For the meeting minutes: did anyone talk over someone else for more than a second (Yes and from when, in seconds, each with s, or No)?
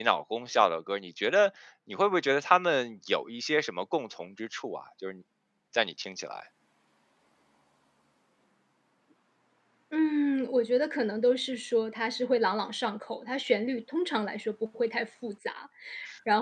No